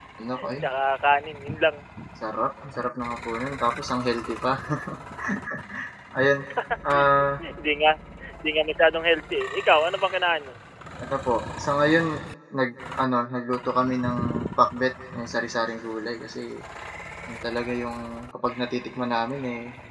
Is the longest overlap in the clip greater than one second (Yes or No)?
No